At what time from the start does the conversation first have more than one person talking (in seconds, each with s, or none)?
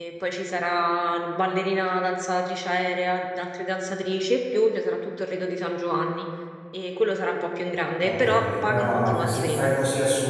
8.0 s